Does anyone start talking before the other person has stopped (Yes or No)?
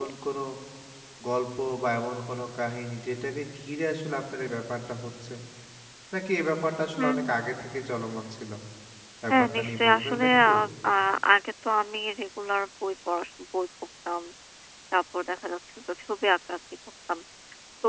Yes